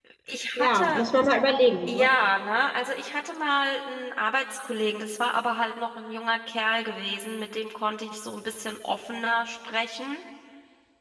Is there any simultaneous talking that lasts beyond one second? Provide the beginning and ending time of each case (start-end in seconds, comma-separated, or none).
none